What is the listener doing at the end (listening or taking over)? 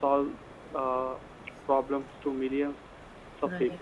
listening